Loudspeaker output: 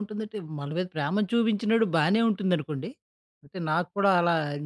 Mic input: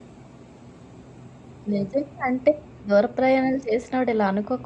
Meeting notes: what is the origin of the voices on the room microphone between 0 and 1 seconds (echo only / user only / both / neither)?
neither